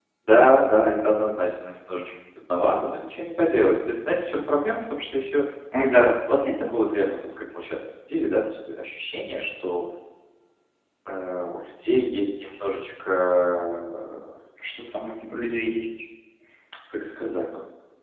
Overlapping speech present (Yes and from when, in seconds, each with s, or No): No